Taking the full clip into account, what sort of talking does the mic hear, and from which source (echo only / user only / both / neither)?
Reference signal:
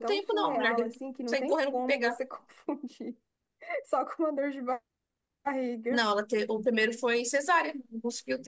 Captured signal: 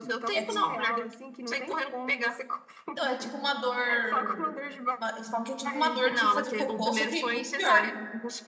both